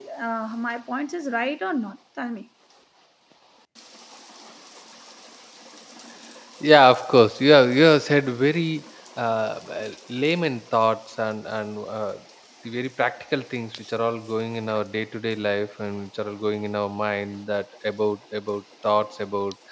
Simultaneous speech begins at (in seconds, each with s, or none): none